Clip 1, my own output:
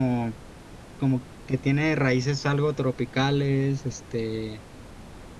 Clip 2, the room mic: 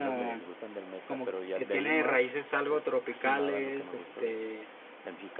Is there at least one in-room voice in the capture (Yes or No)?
Yes